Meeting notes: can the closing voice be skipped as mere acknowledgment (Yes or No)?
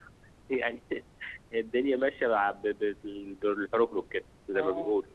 No